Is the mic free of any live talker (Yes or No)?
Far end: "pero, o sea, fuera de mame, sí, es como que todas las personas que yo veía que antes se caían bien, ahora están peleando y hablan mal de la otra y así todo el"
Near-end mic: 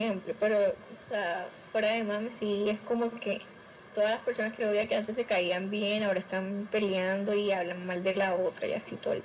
Yes